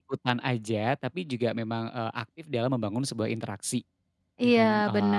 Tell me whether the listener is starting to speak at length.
Yes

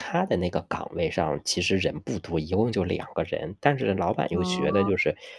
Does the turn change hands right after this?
No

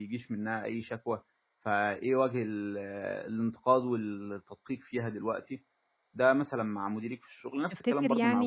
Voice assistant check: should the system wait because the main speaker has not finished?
No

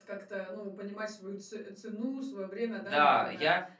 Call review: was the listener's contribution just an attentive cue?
No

